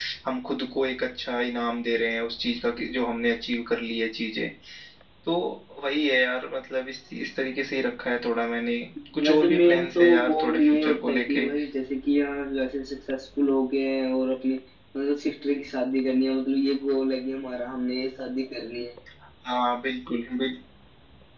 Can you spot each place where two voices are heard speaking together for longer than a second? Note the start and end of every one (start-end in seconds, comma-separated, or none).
9.2-11.5